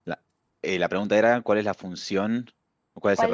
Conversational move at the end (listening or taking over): taking over